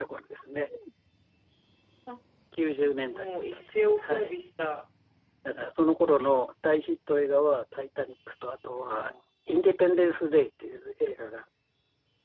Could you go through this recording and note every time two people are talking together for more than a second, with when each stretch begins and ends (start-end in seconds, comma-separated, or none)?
none